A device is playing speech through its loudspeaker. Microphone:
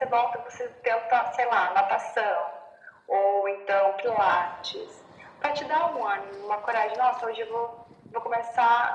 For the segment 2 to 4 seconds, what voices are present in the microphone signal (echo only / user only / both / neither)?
echo only